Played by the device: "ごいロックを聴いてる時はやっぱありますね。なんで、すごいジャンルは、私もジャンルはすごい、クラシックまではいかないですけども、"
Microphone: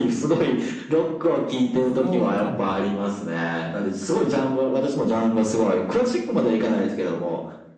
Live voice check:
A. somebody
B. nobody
A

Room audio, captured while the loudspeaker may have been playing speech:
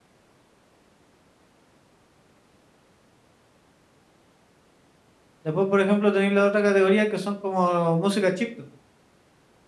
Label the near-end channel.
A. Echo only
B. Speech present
B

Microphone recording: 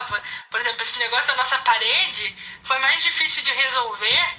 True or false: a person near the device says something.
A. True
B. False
B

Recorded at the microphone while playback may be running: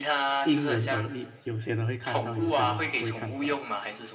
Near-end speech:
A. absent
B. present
B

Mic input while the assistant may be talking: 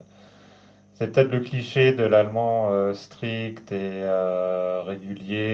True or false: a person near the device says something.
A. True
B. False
A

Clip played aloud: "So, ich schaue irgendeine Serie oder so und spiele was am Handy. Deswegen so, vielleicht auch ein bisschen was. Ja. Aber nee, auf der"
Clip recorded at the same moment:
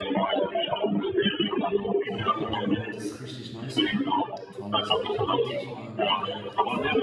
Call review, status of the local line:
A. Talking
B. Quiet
A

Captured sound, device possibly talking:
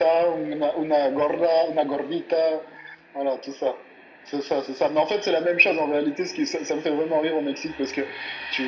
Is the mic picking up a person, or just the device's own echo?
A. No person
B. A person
A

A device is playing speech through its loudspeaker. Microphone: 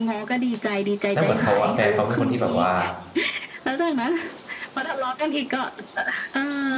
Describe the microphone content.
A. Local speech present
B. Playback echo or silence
A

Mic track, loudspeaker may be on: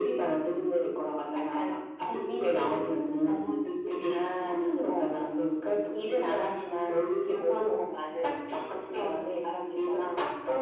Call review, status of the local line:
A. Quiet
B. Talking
A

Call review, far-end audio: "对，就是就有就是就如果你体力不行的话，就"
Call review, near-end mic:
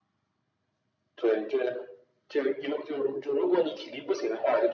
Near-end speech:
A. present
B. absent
B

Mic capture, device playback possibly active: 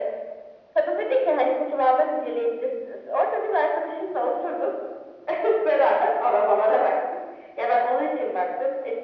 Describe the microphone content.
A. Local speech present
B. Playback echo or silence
B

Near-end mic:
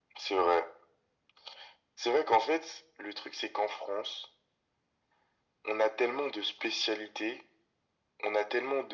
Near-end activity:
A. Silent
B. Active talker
A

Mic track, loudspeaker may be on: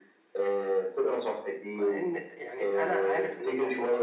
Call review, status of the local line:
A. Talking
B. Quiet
A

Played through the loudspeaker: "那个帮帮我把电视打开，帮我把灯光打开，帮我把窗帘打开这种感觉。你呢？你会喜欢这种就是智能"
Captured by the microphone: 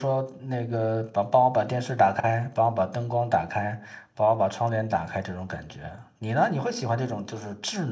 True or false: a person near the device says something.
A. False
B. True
A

